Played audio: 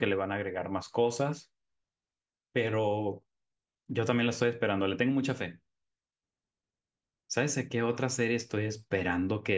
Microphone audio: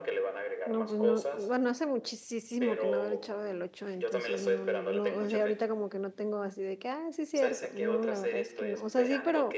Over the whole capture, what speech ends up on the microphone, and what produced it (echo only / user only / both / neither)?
both